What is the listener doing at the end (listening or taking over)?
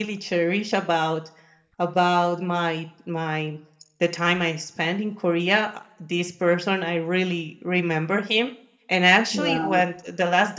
listening